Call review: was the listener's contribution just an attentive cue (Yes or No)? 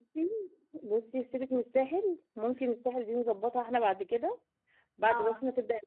Yes